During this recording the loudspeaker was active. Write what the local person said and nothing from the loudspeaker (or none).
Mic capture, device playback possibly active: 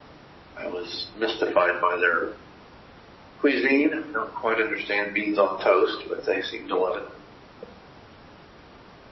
none